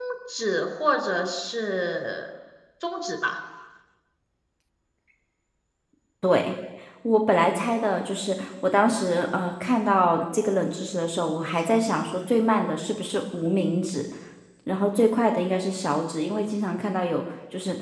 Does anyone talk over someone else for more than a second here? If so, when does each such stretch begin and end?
none

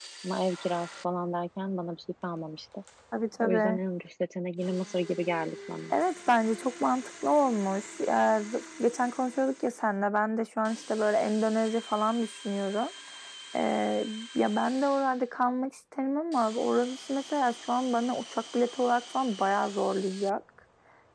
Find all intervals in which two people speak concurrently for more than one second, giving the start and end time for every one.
none

